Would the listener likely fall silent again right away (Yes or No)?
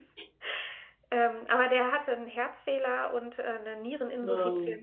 Yes